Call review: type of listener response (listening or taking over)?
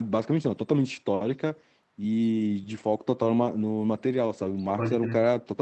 listening